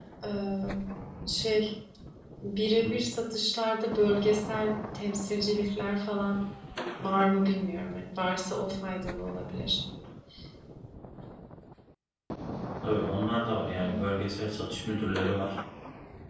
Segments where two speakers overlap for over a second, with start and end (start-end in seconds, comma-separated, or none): none